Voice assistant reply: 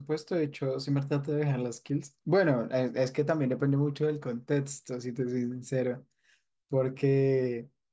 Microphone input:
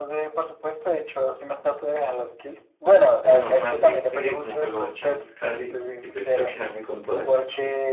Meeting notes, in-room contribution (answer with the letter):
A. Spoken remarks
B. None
A